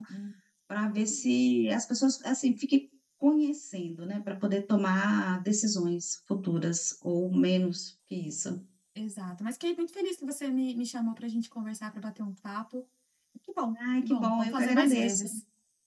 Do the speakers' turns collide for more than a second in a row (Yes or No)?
Yes